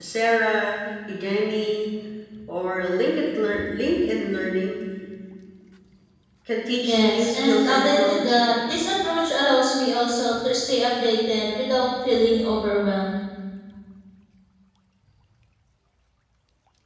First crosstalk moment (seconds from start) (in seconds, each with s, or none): 6.9 s